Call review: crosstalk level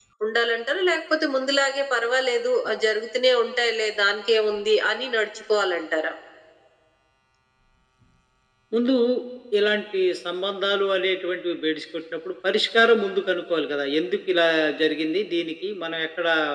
none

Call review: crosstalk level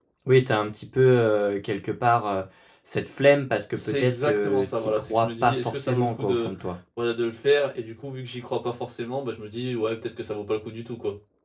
present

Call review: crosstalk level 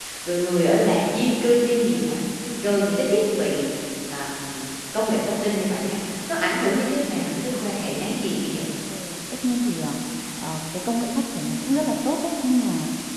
none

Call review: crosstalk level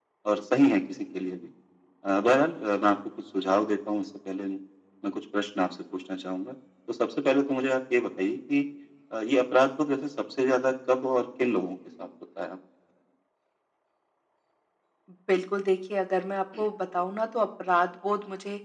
none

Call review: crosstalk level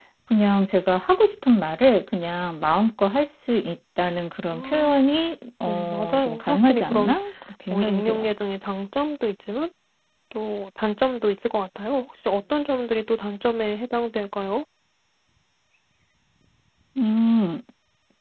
present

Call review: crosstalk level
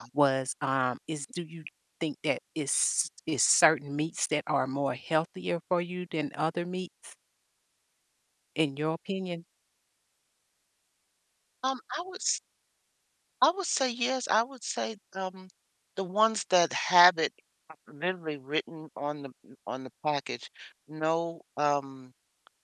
none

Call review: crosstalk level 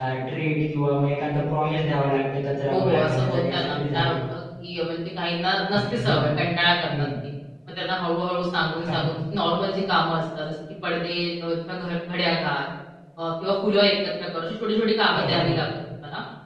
present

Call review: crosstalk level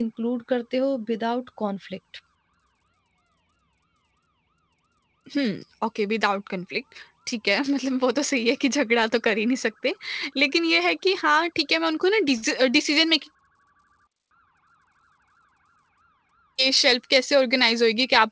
none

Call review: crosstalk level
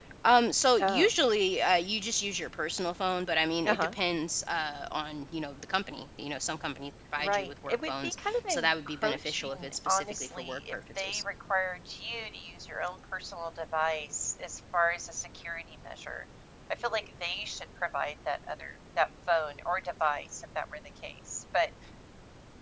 present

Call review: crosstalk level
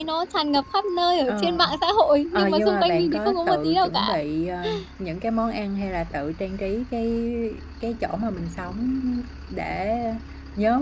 present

